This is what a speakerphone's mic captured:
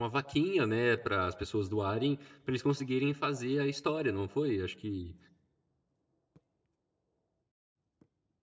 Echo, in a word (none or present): none